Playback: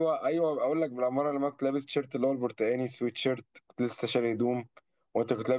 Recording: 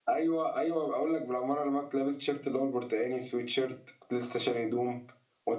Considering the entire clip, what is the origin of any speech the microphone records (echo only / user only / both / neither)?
echo only